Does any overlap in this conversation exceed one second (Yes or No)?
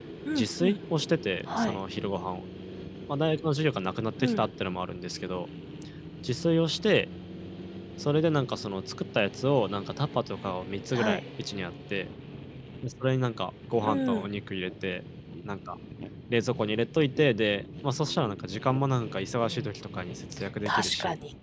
No